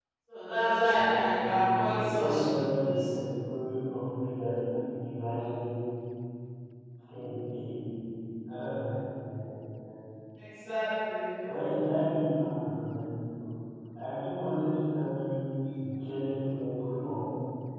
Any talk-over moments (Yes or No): Yes